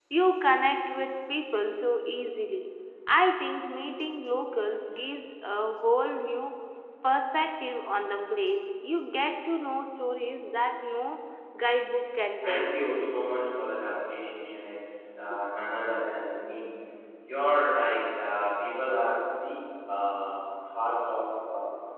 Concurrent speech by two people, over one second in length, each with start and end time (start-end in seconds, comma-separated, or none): none